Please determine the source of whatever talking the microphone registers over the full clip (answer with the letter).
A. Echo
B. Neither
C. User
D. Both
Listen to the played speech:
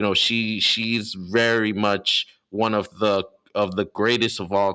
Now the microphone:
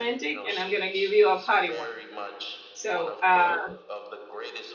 D